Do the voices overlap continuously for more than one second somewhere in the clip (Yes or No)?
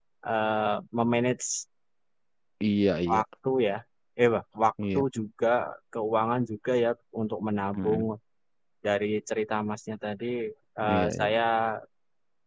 No